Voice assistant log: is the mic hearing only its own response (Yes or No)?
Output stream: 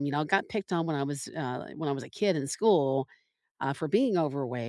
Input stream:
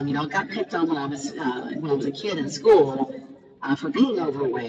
Yes